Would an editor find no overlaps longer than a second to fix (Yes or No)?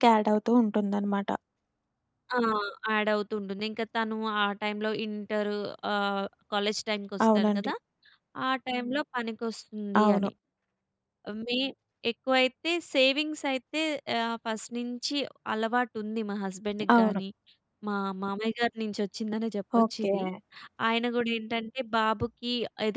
Yes